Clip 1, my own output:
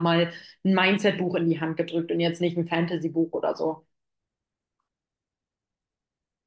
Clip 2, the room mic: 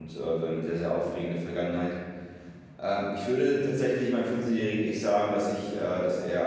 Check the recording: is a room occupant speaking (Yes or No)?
Yes